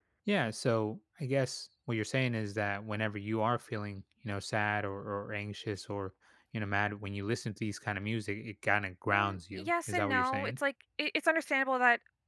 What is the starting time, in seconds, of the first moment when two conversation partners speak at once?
9 s

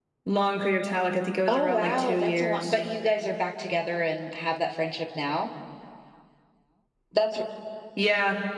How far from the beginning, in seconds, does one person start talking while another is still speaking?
1 s

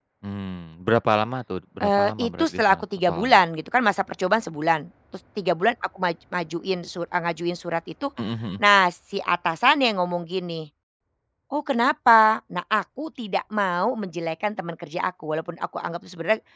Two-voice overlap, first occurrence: 2 s

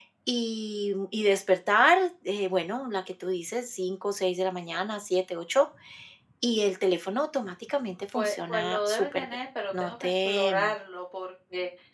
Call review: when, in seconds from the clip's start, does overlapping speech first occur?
8 s

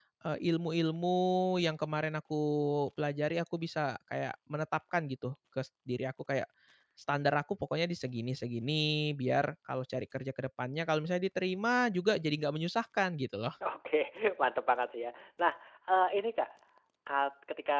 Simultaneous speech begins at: none

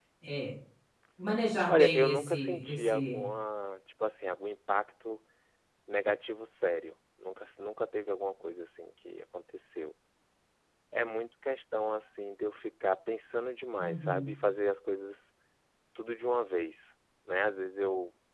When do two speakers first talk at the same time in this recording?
2 s

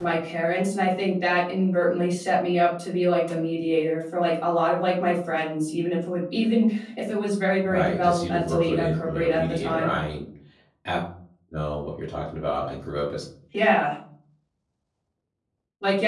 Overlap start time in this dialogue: 8 s

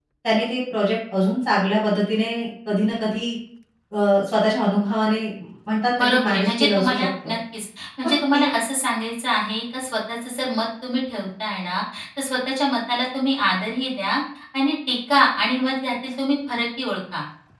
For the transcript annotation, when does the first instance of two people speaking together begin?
6 s

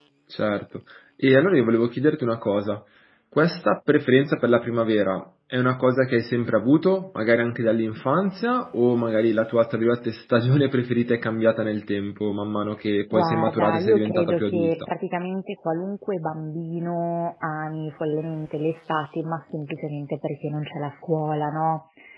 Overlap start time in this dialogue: 13 s

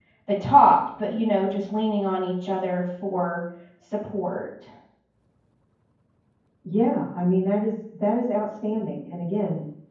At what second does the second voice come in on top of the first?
none

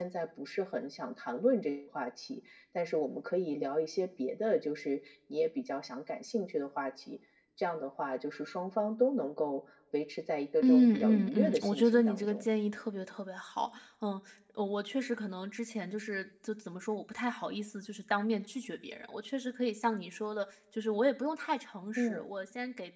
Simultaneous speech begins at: 11 s

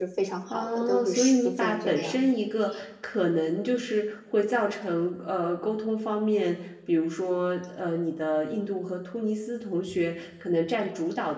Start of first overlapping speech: 1 s

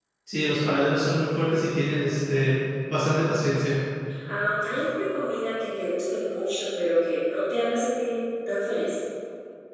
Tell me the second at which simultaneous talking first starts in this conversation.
none

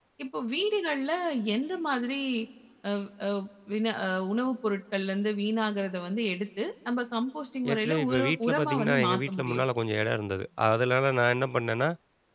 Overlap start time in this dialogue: 8 s

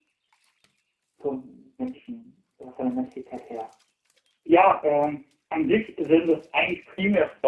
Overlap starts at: none

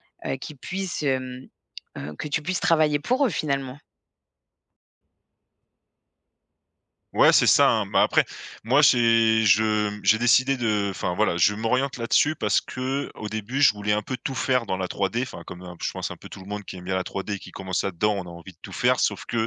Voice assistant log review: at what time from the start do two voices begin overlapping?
none

